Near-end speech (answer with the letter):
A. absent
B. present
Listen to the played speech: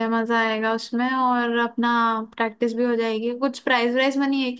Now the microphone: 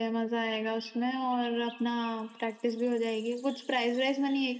A